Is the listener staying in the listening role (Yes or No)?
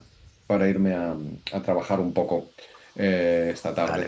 Yes